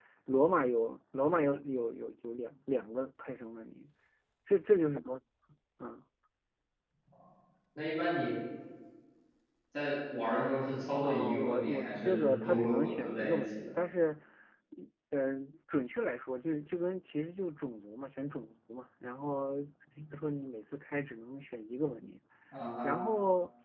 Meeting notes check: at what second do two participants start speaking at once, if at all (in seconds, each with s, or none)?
11.0 s